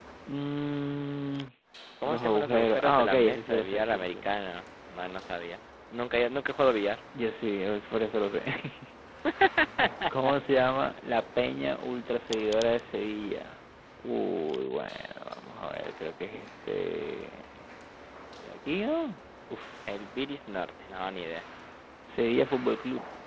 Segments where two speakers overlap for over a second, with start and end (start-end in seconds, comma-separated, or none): 2.0-4.3